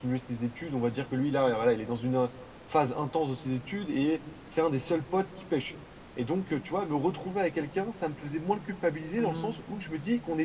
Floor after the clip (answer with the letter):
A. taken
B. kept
B